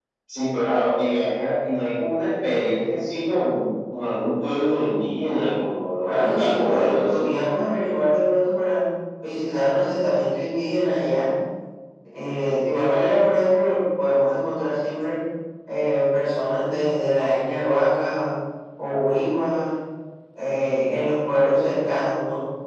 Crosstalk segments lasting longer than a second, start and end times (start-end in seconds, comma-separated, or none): 6.0-7.2